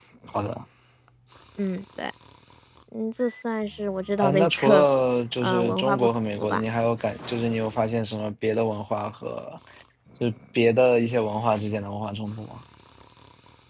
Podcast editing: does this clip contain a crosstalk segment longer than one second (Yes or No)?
Yes